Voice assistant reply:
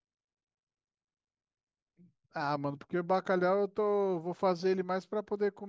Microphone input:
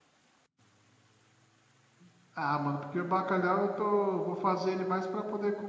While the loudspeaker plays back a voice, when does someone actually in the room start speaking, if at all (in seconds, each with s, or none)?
none